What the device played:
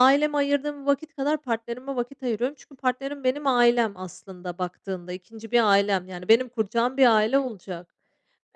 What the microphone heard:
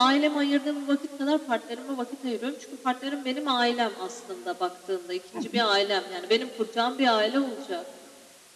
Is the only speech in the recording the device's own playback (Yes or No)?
No